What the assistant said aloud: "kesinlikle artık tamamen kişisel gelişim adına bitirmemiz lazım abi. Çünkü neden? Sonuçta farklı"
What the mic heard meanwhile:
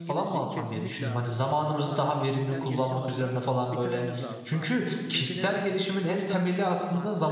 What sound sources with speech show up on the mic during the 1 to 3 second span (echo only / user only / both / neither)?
both